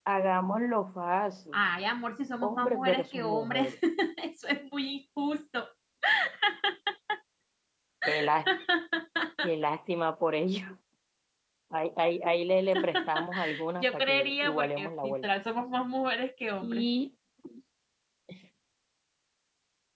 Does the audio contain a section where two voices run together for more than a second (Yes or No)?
Yes